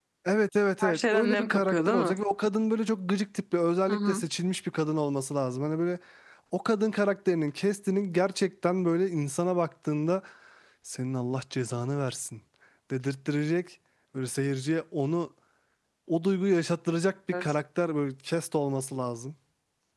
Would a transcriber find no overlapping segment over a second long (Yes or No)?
No